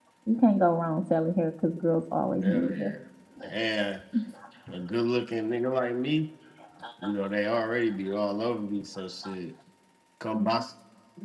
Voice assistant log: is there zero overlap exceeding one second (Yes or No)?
Yes